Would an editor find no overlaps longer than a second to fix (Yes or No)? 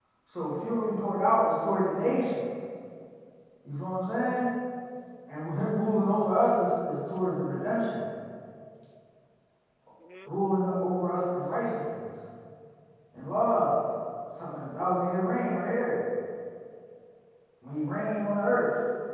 No